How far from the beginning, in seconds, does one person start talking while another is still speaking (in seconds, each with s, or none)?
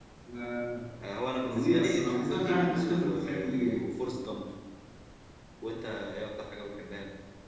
1.5 s